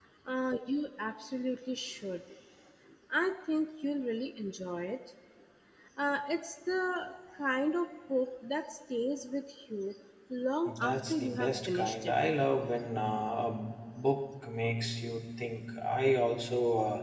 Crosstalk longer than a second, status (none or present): present